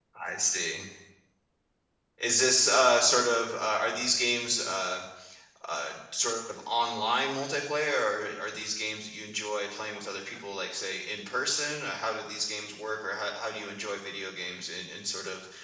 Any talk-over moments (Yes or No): No